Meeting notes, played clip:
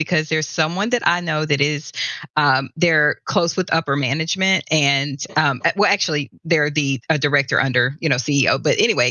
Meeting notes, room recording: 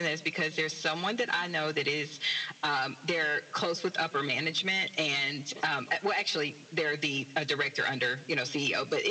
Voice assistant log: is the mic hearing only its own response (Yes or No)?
Yes